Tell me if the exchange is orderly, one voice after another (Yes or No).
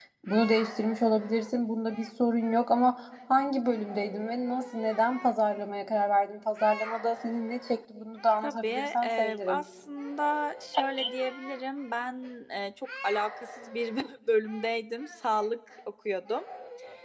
No